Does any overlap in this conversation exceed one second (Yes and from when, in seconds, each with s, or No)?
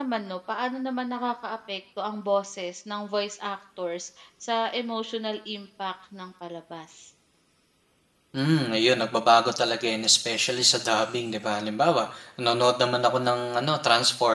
No